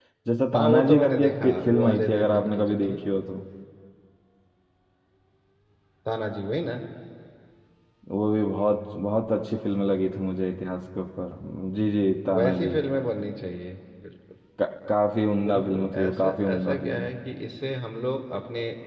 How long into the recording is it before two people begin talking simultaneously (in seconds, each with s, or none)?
0.5 s